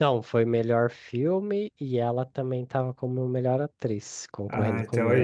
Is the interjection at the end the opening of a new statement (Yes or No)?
Yes